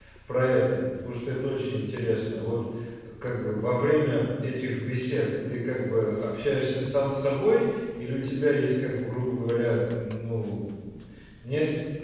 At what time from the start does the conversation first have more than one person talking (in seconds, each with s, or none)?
none